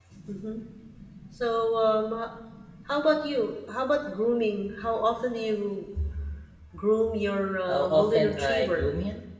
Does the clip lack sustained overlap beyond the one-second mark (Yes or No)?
No